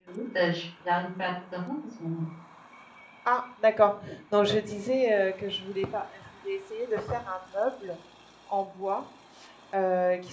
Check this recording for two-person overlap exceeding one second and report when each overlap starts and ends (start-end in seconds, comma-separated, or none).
none